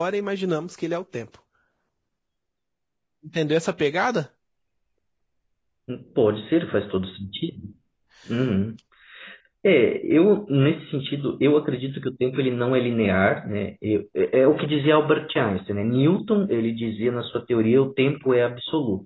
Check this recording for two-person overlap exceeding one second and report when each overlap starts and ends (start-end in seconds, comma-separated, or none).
none